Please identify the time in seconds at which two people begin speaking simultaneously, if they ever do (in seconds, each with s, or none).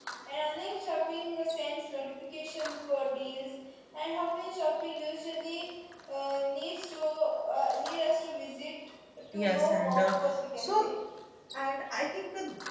9.3 s